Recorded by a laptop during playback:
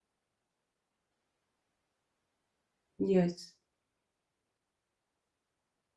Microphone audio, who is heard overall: user only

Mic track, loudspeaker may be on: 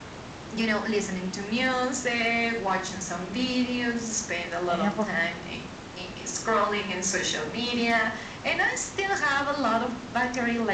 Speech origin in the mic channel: both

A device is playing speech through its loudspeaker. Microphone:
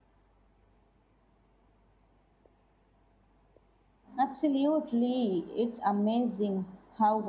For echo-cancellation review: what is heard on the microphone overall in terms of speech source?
user only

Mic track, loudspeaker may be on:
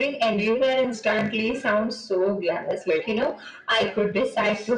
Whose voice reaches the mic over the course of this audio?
echo only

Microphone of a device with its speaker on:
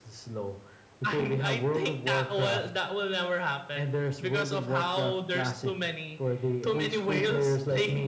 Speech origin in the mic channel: echo only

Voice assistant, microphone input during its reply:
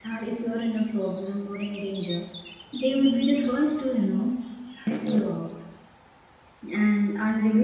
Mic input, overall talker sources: user only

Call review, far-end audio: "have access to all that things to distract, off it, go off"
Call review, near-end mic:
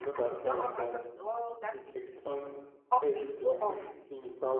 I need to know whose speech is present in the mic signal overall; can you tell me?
both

